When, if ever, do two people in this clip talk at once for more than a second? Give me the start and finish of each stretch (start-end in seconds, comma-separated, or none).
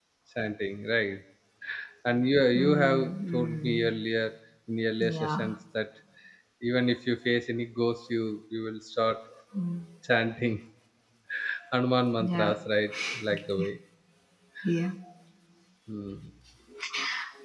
2.6-3.9